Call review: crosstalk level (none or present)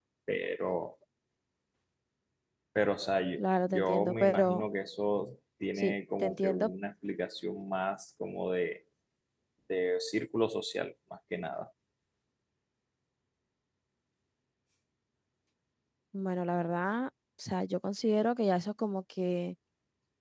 present